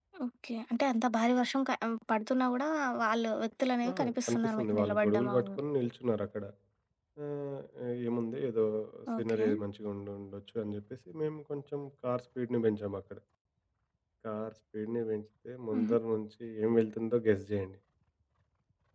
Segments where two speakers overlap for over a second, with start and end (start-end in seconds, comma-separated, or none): 3.9-5.6